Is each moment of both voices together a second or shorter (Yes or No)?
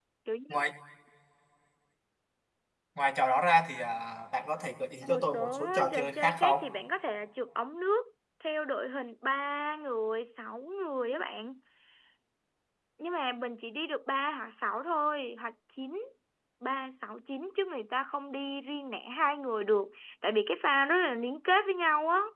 No